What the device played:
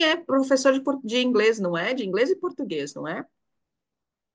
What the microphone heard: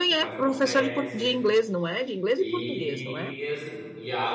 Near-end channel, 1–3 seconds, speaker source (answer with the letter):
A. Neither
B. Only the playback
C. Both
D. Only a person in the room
C